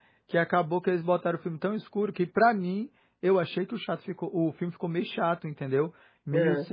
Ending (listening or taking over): listening